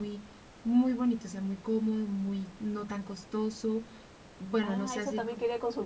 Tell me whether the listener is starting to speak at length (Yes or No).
Yes